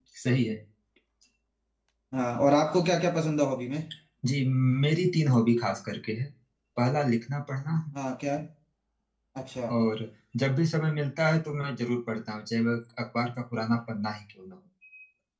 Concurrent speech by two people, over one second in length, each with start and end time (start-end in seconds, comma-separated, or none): none